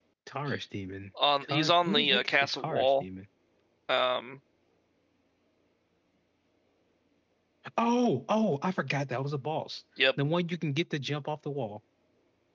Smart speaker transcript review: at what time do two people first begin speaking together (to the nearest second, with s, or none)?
1 s